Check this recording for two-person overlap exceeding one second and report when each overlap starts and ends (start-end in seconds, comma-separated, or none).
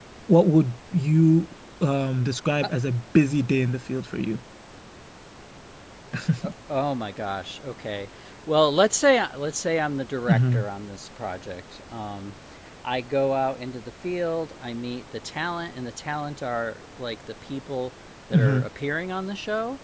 none